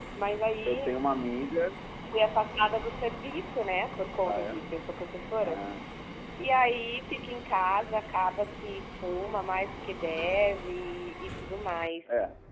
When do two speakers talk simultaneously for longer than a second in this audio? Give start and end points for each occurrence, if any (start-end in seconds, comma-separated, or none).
none